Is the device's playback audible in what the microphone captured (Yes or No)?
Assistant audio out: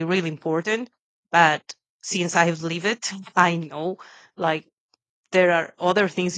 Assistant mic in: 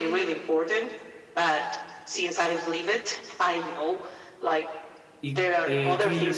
Yes